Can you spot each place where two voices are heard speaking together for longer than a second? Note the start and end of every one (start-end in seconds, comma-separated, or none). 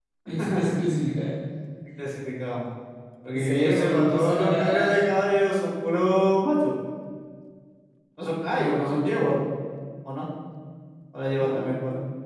3.3-5.0